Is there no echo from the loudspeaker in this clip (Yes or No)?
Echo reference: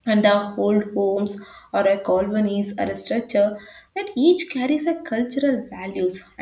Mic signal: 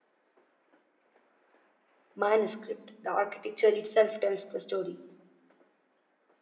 Yes